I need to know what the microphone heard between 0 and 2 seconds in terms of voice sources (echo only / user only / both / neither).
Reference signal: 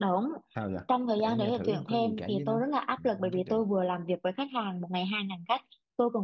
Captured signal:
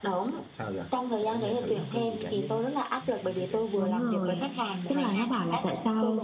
echo only